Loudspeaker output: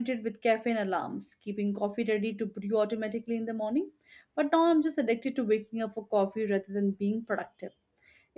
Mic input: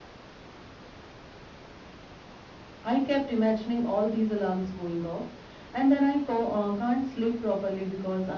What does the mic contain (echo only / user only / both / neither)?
user only